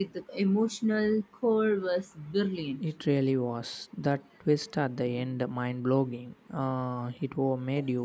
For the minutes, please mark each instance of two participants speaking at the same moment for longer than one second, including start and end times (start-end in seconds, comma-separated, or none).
none